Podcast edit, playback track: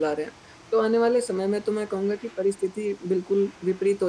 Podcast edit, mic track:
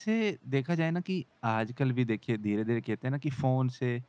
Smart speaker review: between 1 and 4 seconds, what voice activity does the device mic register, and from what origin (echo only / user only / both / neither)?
user only